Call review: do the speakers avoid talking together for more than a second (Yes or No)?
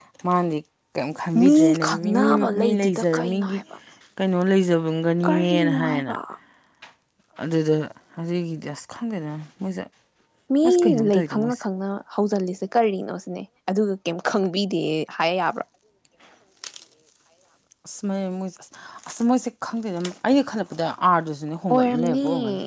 No